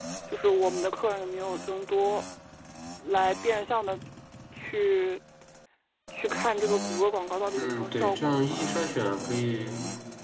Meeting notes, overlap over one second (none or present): present